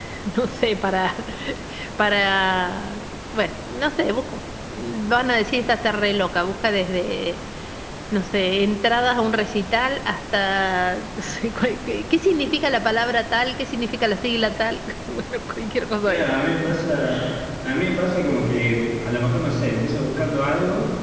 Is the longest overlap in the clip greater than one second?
No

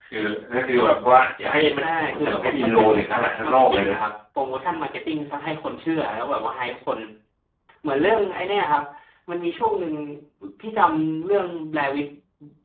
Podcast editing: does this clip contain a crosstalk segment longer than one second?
Yes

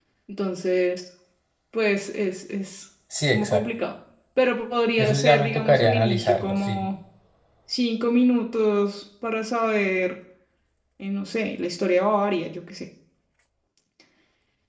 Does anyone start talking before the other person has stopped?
Yes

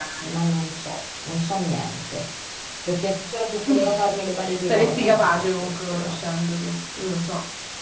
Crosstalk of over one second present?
Yes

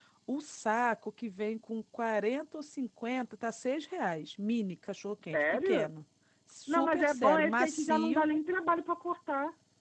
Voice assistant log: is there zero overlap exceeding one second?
No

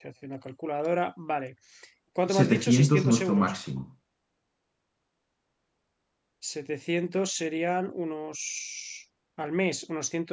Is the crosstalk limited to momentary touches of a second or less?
No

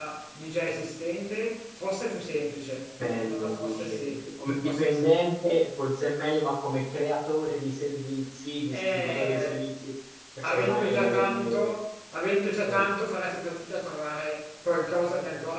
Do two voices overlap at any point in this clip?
Yes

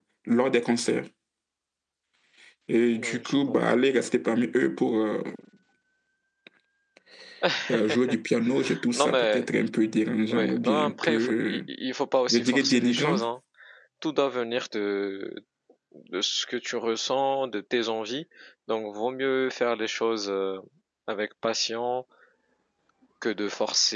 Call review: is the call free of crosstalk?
No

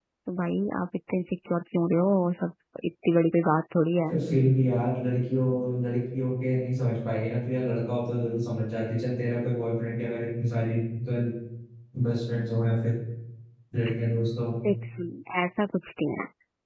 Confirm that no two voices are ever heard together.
Yes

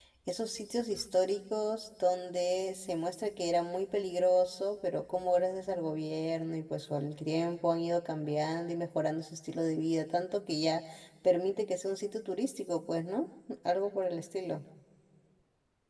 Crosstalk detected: No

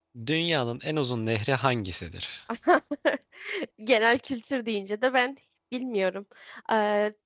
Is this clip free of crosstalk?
Yes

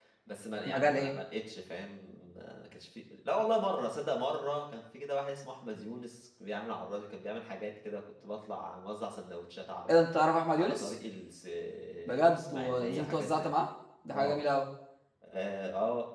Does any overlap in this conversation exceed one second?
Yes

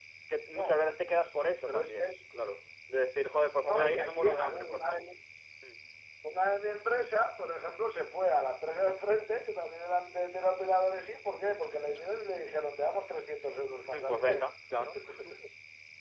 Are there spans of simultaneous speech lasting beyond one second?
Yes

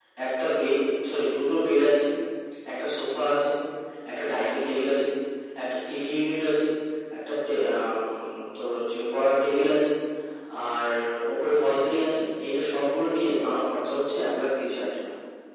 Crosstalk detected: No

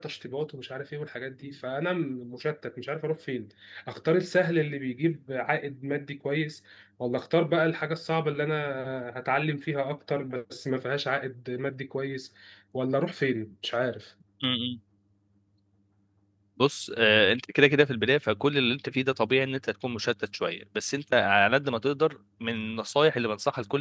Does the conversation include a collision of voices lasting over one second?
No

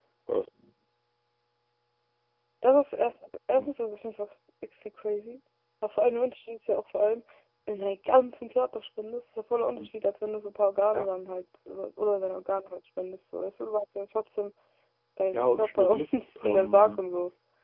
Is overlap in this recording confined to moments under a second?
No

